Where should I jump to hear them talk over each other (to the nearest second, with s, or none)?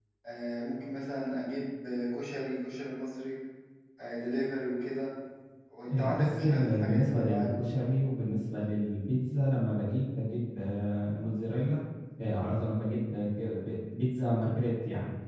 6 s